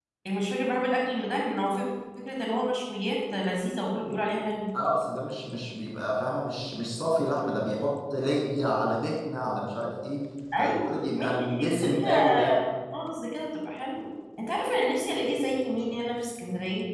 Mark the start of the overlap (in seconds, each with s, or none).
10.5 s